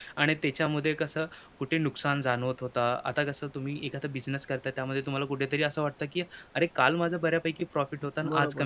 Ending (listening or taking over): taking over